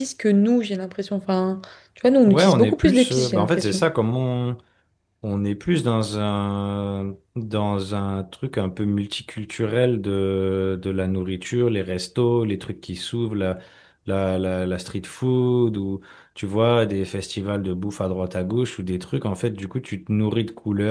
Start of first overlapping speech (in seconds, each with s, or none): 2.3 s